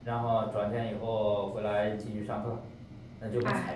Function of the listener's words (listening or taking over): listening